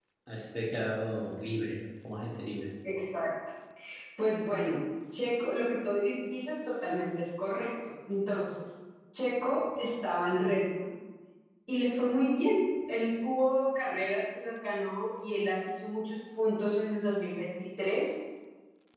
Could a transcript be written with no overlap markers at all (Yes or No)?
Yes